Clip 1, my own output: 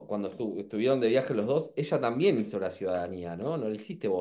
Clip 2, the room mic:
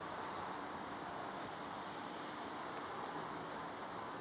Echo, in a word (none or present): none